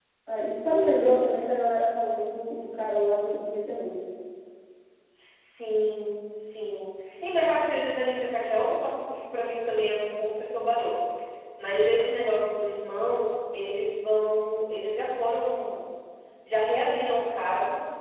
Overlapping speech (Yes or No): No